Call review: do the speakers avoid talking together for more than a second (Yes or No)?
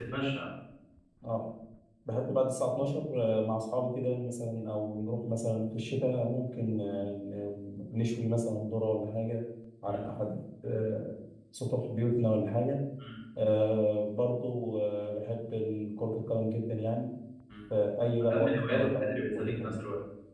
No